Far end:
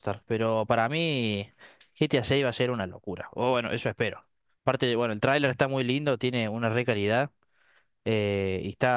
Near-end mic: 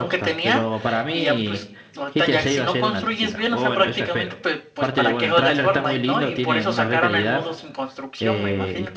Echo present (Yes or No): Yes